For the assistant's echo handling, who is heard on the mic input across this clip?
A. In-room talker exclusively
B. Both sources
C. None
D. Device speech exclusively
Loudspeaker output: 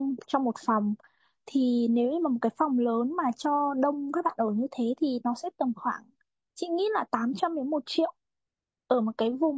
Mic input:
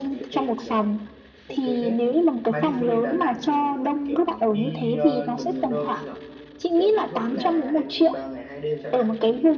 B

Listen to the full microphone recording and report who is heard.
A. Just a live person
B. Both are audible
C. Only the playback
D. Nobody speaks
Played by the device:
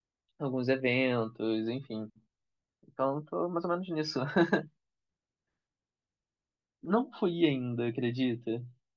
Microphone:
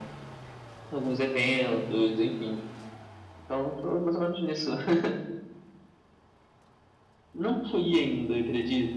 C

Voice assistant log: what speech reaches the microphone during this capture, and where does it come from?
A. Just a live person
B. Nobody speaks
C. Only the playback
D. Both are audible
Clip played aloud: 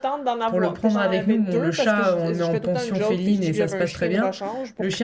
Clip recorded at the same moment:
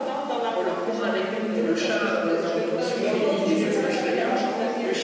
D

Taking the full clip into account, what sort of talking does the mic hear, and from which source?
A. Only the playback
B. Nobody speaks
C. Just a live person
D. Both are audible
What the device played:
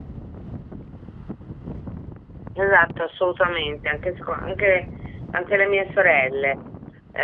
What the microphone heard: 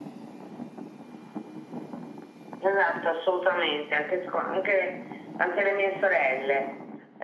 A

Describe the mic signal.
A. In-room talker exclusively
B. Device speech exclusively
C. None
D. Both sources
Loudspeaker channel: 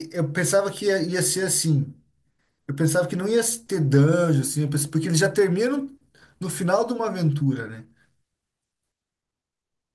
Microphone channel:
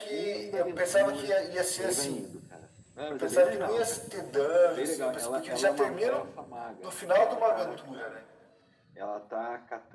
D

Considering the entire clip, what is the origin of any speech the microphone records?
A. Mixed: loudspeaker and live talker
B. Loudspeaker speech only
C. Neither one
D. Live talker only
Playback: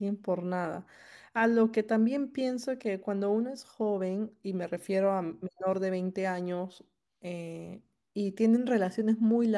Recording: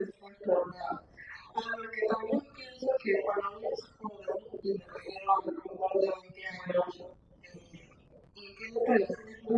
B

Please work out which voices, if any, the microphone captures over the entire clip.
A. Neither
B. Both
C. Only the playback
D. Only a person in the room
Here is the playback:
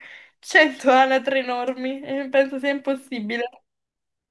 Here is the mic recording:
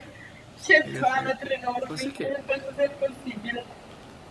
B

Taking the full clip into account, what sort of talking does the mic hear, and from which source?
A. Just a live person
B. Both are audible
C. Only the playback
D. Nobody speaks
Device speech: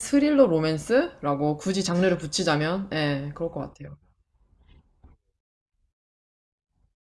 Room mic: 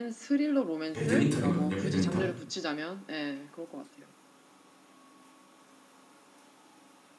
B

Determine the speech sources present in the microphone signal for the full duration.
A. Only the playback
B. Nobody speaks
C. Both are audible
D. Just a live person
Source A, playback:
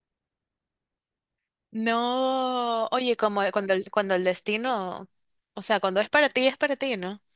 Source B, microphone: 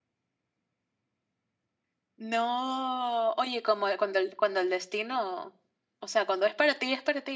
A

